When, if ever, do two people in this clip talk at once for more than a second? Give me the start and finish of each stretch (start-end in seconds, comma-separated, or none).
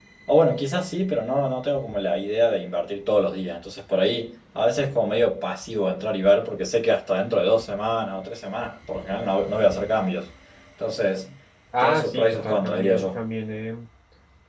11.8-13.2